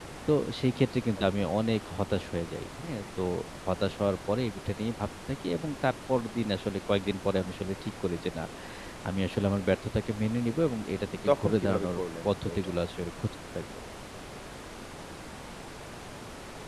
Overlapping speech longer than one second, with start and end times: 11.3-12.7

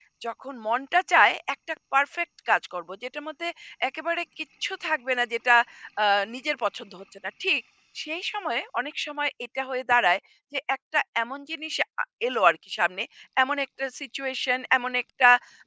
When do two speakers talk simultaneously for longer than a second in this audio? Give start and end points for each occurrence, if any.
none

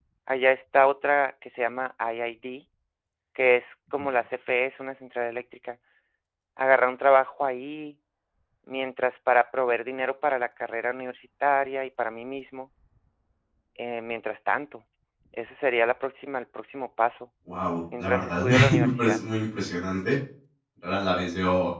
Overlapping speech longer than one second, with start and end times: 18.0-19.2

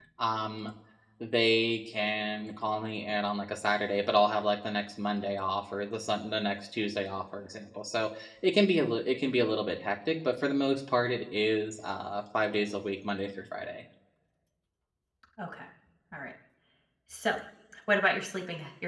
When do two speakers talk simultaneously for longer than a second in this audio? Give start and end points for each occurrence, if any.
none

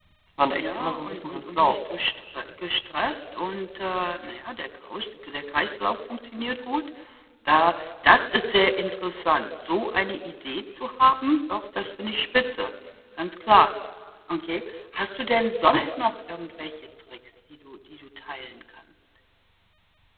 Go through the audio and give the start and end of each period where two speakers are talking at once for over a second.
0.5-1.7

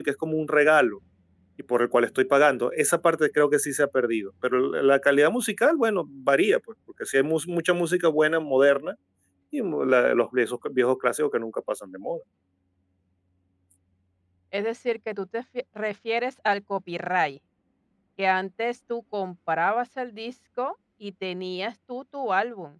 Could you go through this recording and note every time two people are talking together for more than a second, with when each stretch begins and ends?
none

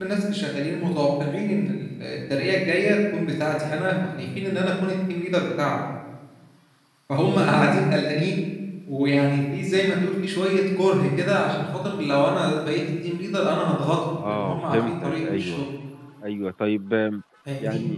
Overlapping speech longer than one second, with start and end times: 14.3-15.7

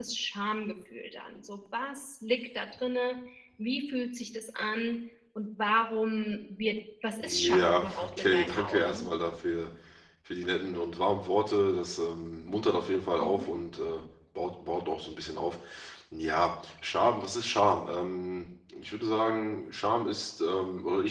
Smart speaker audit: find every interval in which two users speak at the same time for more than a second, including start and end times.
7.2-9.1

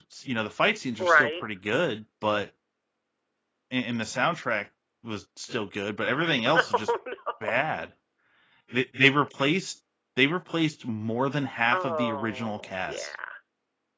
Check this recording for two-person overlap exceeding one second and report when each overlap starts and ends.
11.7-13.1

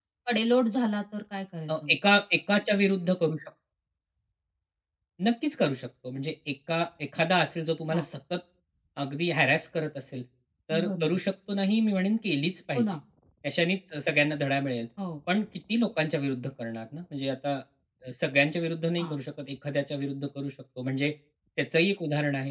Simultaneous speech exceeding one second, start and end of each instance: none

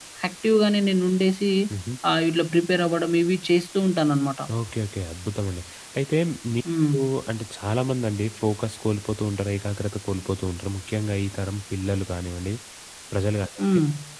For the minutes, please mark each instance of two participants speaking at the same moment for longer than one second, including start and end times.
none

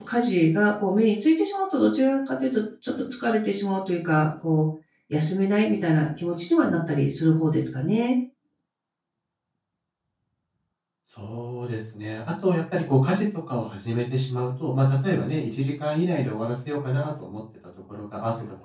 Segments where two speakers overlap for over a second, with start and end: none

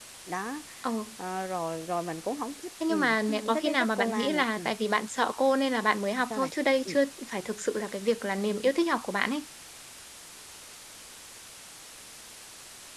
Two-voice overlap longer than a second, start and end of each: 2.9-4.7

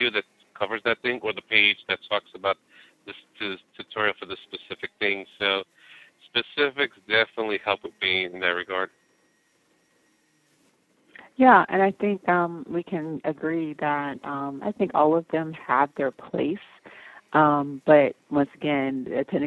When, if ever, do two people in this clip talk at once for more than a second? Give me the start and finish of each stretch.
none

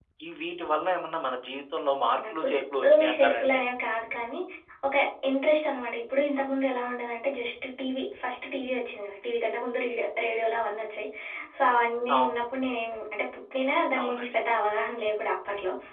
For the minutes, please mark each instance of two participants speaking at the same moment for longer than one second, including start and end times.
2.2-3.6

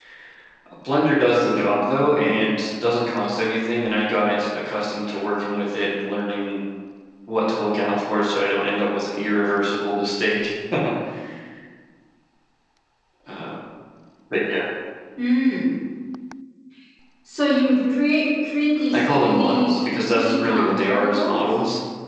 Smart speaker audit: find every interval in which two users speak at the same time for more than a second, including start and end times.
18.9-21.4

